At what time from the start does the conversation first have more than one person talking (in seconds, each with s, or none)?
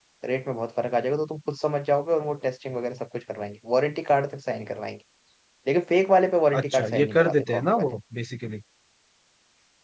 6.5 s